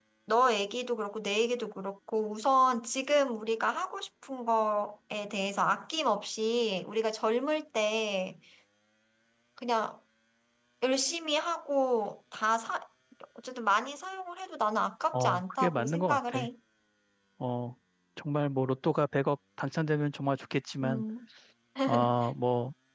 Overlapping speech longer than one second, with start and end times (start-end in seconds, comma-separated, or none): 15.1-16.5